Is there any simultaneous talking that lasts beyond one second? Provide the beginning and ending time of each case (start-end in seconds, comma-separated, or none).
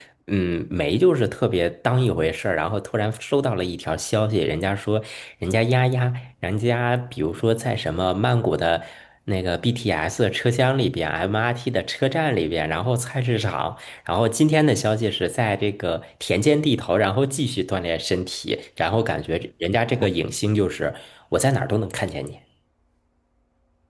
none